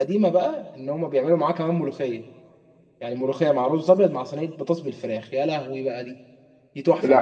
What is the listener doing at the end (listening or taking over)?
taking over